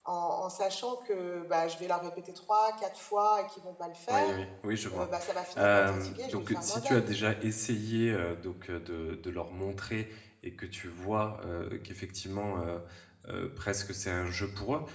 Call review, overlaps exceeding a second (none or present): present